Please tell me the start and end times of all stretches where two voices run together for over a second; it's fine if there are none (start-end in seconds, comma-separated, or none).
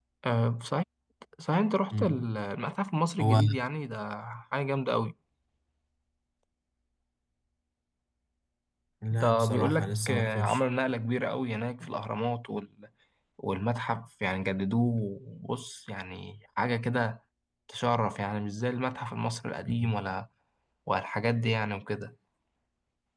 9.1-10.6